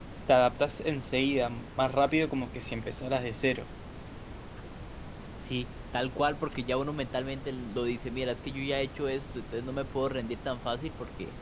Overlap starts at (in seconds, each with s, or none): none